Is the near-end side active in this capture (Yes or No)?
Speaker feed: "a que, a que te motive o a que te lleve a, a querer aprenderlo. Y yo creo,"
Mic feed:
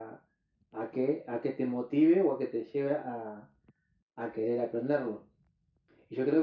No